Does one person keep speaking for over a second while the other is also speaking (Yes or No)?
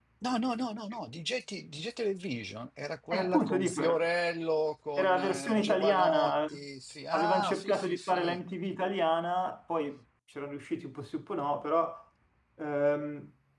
Yes